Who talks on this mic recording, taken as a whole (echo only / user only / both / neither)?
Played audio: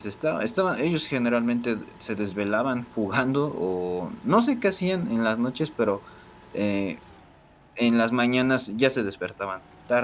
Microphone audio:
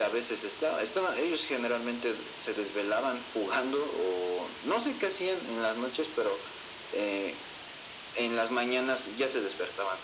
echo only